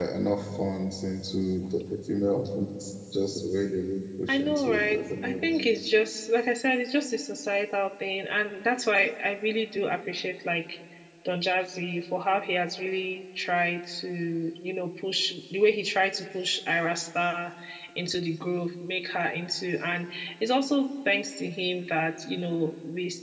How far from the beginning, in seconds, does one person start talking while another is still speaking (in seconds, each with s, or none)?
4.3 s